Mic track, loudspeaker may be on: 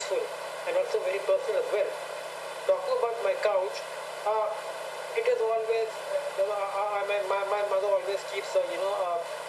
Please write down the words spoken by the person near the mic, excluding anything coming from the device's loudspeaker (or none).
none